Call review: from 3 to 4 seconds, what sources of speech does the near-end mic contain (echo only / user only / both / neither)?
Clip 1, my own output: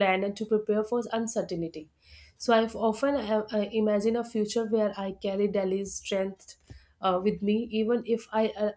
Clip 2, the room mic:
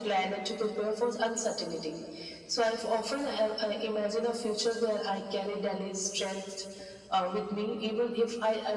echo only